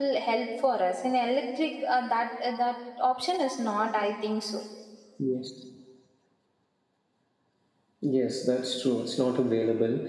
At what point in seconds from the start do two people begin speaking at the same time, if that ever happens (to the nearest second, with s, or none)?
none